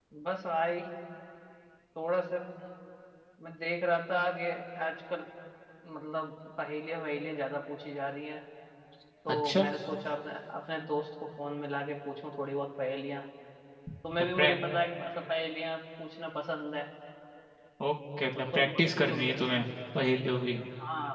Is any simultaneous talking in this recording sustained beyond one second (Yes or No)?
No